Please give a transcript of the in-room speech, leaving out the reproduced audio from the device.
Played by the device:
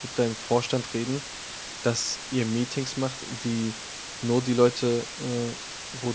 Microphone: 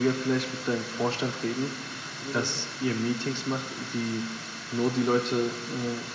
Mhm.

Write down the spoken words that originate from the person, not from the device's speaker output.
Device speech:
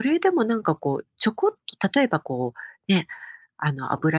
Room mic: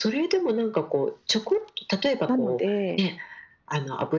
なので、

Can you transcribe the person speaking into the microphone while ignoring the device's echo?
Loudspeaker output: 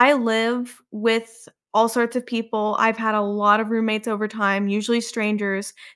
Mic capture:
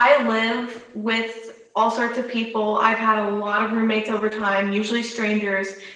none

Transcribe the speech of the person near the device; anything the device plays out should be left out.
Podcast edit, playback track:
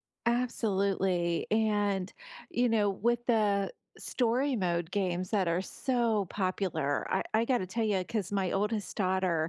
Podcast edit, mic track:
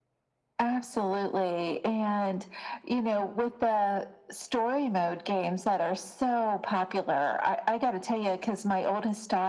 none

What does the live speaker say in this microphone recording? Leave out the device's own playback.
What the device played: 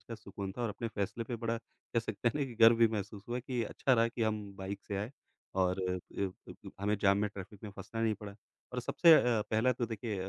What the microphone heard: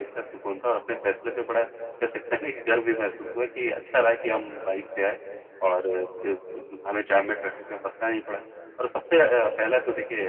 none

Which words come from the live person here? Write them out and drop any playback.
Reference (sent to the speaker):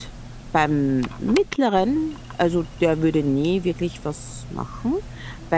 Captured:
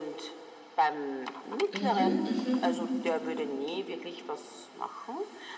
mhm, mhm.

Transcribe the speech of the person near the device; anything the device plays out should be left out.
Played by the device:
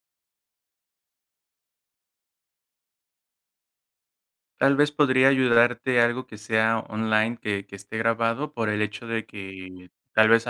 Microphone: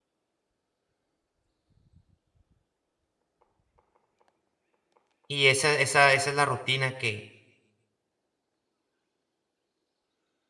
y esa esa esa es la rutina que,

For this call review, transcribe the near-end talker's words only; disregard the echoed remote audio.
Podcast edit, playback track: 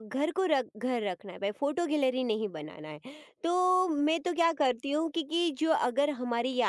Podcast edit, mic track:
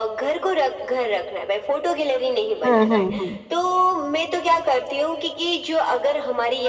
हुँ, हुँ, हुँ।

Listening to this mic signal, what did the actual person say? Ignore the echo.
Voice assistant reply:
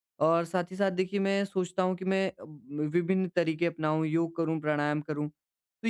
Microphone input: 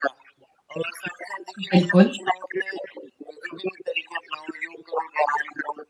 बिल्कुल।

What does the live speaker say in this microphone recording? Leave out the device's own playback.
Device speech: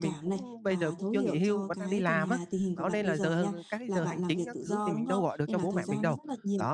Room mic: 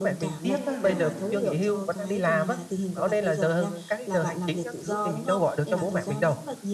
tiếc á, nên là

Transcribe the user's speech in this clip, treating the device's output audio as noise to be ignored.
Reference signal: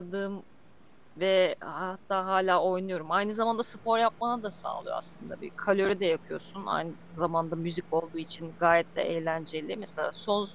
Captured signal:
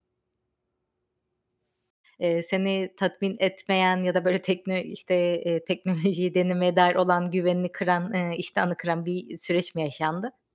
eee, seni tatmin etmeyen ya da böyle tekno işte, eee, teknolojiyi denemeye dair olan güvenini kıran, eee, iştahını kıran bir süreç mi yaşandı?

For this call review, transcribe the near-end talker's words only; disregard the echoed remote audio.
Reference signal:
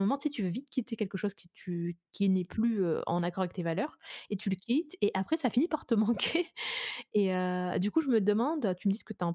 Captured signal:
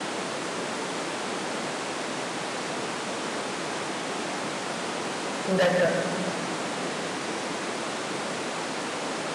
D'a

